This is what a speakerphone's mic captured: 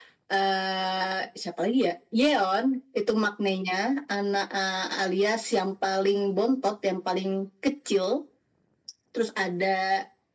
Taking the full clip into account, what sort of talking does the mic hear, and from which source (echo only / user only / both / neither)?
echo only